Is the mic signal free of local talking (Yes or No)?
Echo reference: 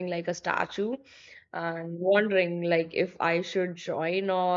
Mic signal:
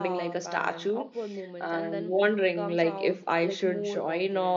No